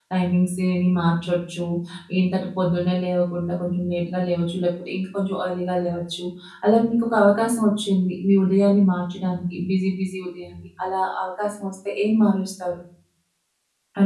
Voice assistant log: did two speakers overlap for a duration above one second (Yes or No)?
No